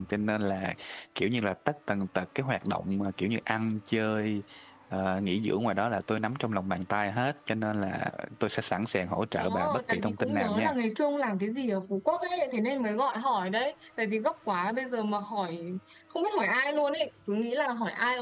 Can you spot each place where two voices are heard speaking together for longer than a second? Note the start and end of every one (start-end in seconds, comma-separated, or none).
9.4-10.8